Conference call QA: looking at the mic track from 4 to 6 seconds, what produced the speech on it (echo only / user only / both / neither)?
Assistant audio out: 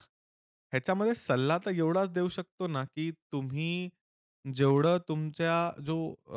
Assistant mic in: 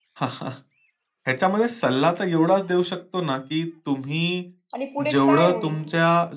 both